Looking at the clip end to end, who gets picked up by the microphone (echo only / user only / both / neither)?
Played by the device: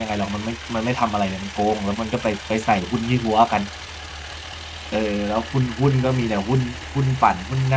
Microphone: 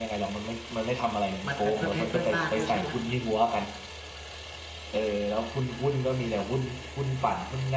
both